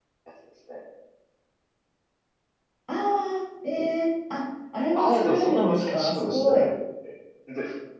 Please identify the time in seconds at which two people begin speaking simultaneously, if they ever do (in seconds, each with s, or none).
5.0 s